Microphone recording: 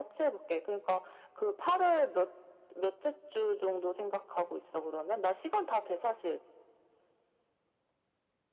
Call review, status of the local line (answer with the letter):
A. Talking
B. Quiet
B